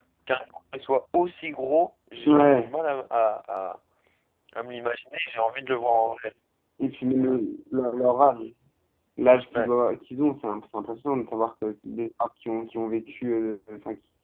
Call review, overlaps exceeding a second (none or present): none